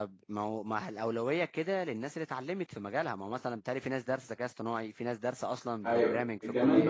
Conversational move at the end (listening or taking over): taking over